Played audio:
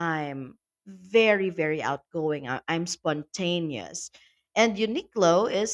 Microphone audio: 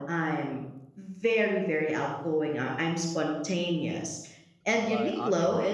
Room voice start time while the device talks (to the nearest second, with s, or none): 5 s